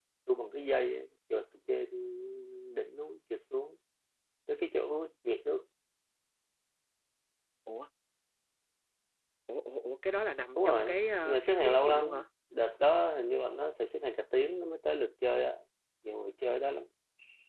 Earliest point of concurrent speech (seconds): 10.6 s

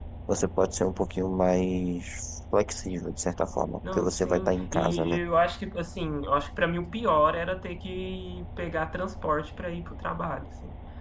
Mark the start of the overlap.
3.8 s

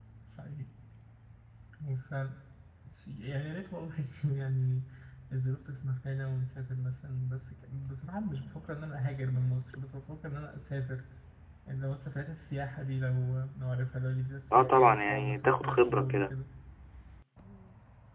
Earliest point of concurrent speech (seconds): 14.5 s

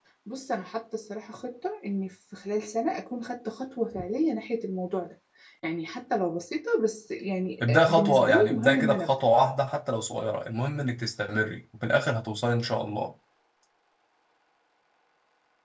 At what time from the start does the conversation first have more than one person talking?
7.6 s

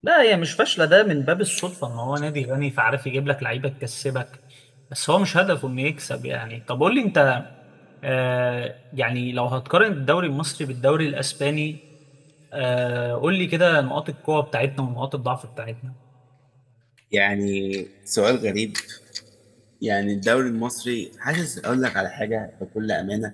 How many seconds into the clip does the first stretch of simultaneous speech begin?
none

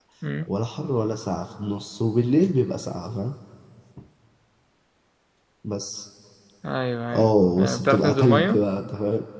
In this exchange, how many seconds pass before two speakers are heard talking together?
7.1 s

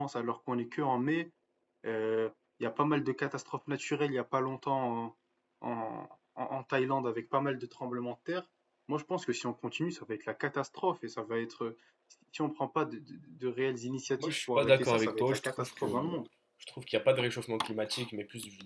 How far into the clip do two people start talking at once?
14.2 s

